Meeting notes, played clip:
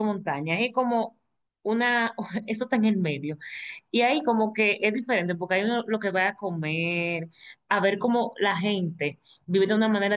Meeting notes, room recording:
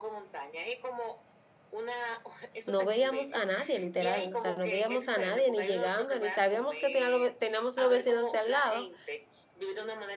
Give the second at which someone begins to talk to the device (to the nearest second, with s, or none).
3 s